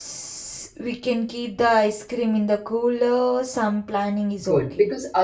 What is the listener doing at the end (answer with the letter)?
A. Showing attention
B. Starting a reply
B